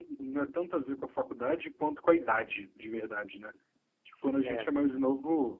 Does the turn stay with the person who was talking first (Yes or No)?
Yes